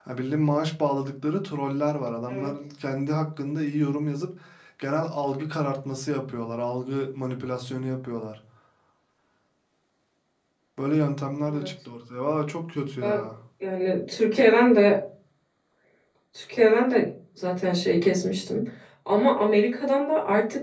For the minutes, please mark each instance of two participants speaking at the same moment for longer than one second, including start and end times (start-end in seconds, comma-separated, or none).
none